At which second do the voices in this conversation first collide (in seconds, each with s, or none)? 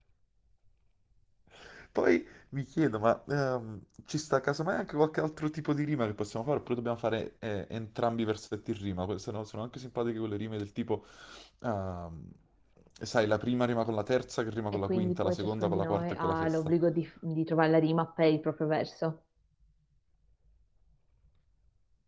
14.9 s